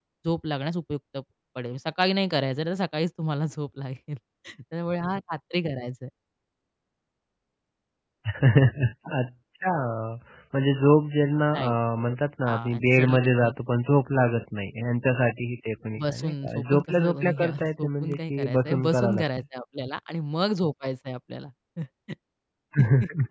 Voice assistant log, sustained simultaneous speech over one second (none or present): present